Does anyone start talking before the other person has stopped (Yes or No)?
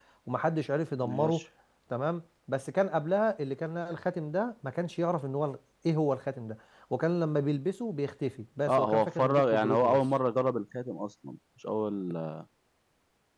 Yes